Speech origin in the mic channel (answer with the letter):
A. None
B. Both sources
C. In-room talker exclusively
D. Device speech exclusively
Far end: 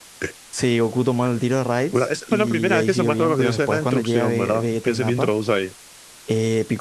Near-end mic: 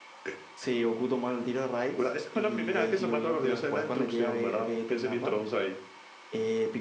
D